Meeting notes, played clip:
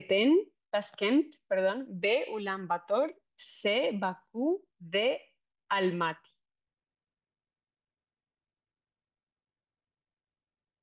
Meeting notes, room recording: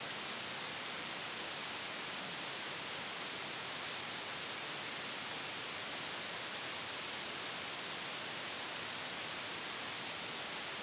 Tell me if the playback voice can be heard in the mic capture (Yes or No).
No